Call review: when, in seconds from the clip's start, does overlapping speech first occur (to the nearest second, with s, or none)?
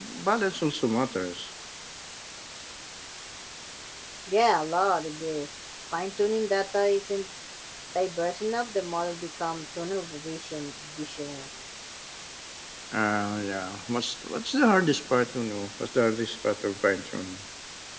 none